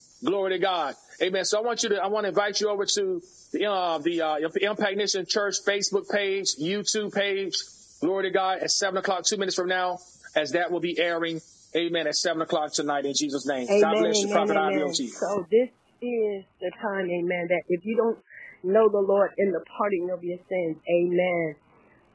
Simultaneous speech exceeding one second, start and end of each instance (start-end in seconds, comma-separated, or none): 13.7-15.1